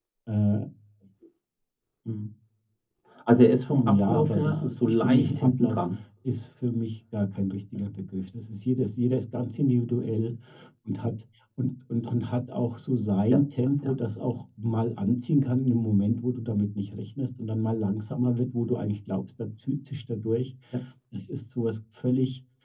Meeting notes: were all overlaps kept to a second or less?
No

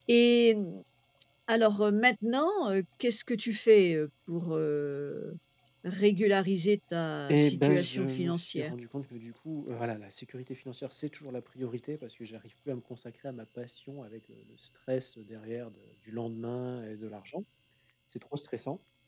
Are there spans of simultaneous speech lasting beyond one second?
Yes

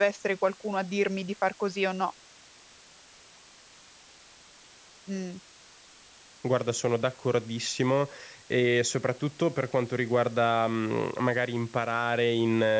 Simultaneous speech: No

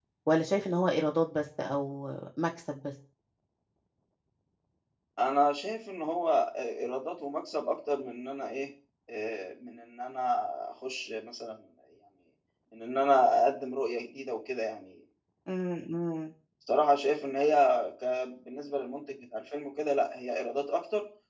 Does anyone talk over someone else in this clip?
No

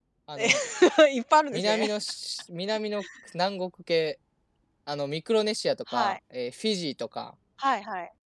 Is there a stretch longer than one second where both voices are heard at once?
No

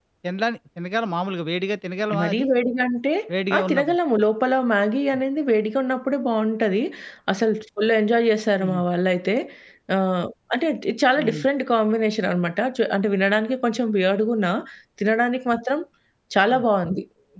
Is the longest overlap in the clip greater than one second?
No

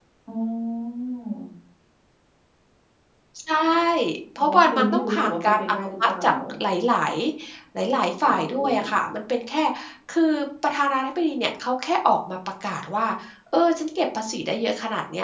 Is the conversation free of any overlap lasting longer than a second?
No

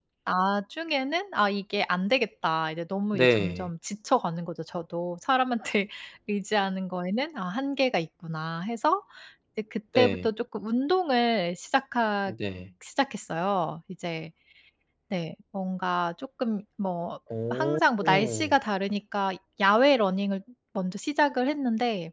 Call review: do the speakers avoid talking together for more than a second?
Yes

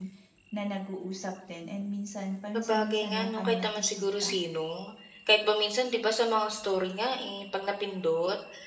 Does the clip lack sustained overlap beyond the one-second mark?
No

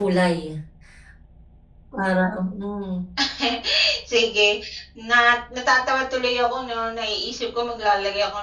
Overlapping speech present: No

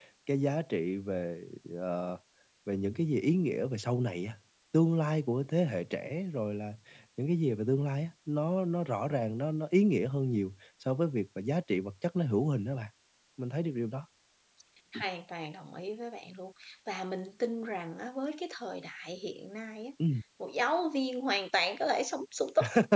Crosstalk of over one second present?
No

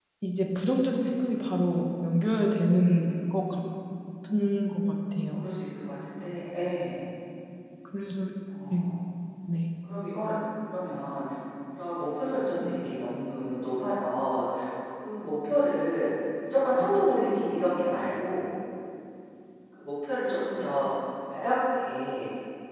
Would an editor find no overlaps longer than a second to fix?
Yes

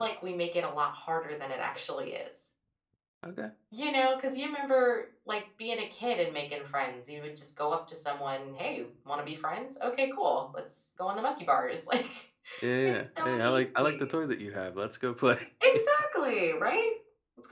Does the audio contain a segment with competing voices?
Yes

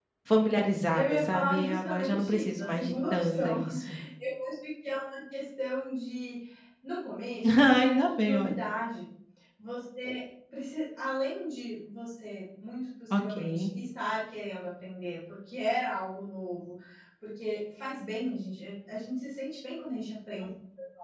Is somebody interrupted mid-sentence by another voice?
Yes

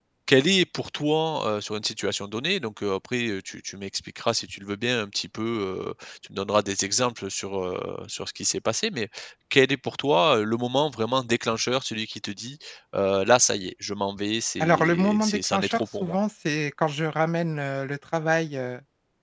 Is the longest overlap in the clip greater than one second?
Yes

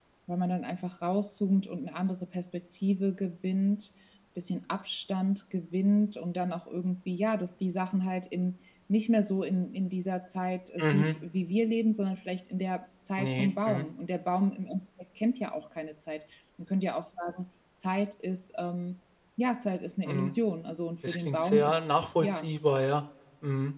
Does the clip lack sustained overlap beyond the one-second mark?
No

